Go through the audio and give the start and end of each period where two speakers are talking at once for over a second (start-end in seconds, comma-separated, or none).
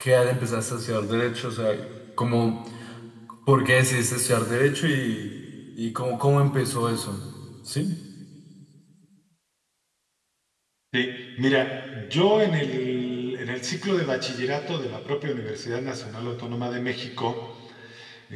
none